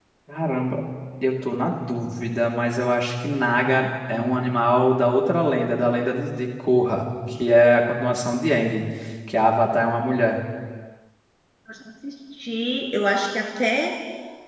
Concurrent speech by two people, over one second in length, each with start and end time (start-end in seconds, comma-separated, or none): none